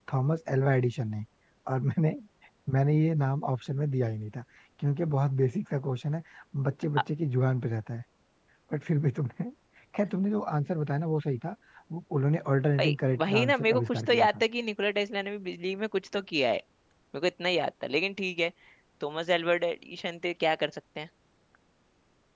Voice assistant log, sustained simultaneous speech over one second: present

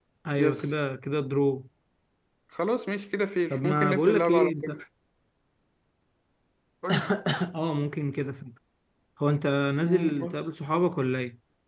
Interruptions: present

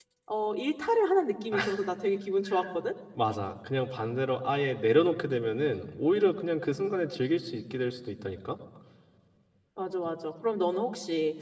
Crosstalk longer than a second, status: none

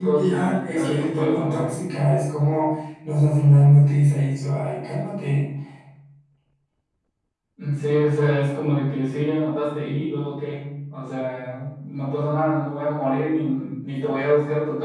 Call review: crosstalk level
present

